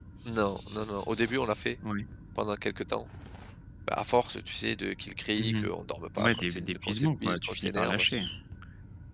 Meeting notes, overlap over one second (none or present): present